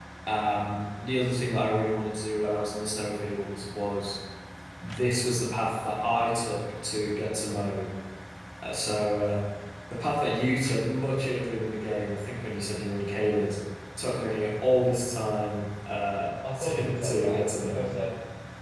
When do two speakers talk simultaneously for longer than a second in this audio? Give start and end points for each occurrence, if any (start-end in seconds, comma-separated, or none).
16.6-17.9